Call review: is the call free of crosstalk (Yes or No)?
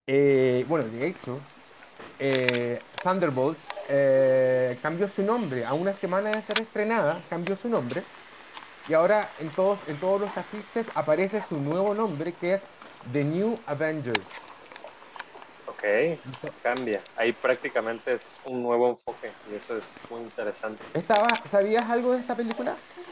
Yes